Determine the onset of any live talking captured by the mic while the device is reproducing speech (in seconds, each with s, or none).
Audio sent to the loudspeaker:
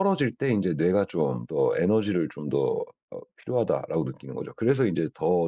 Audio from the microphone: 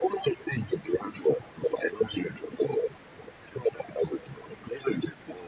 none